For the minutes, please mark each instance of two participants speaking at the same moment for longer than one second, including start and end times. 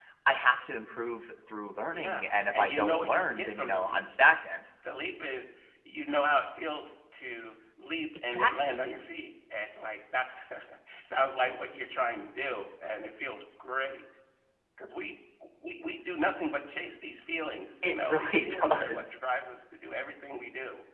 1.9-4.0, 17.8-19.2

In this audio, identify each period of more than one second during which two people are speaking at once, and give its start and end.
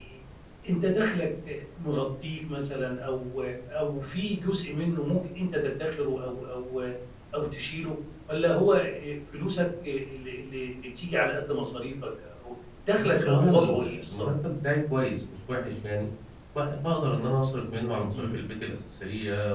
13.0-14.3

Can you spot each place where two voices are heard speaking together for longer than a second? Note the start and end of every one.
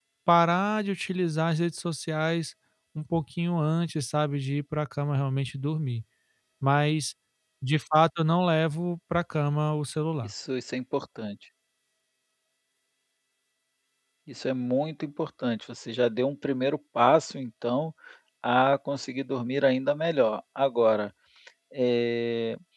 none

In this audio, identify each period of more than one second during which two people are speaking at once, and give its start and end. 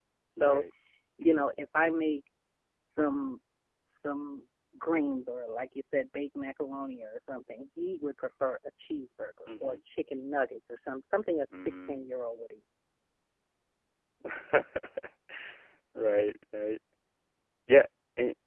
none

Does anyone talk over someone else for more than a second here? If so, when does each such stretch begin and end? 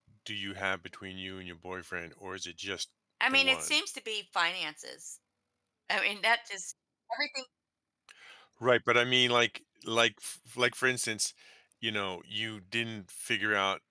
none

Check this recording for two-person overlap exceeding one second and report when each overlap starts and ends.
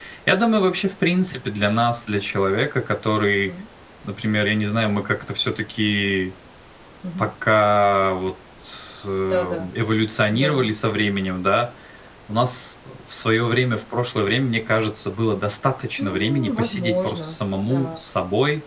16.0-17.9

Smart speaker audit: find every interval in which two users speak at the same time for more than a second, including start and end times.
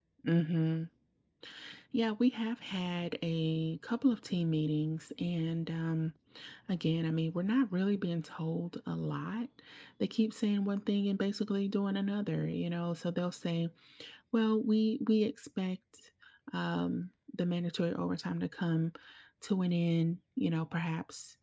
none

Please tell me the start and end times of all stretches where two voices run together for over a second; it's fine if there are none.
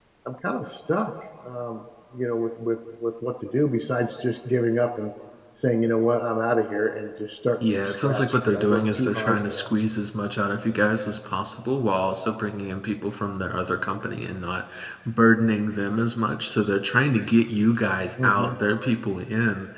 7.9-9.7

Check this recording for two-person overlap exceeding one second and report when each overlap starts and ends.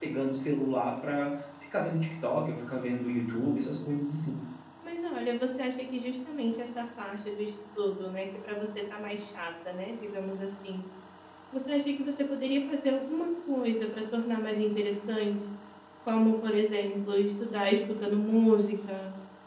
none

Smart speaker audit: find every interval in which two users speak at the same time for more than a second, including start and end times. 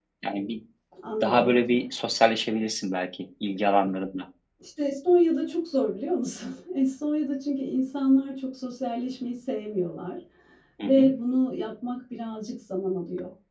none

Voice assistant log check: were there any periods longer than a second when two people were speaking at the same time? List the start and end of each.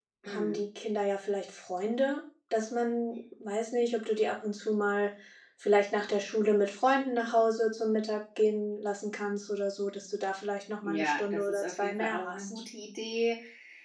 10.8-12.6

